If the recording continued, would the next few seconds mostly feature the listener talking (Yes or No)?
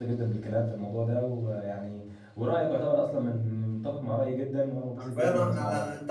Yes